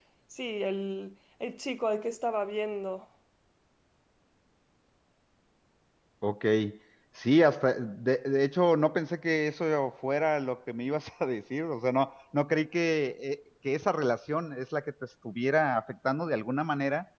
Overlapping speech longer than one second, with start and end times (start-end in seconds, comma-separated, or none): none